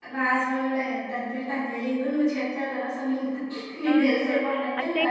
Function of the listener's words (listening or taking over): taking over